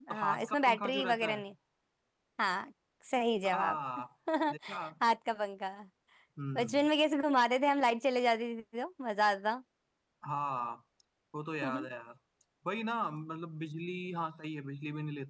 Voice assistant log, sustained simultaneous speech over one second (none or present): present